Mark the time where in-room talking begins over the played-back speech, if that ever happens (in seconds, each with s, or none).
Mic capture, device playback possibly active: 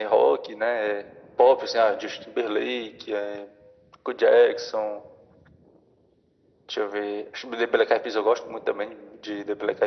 none